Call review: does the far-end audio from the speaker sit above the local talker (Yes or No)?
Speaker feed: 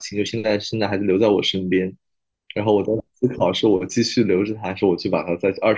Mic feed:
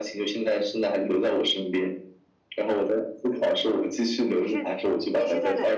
Yes